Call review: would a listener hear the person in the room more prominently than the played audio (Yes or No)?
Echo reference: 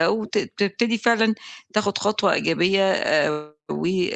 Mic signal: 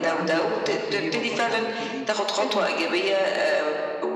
No